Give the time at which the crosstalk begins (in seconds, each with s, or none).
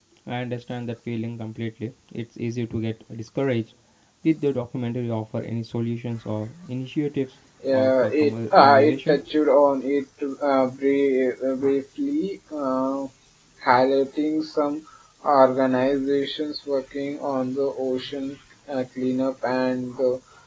7.6 s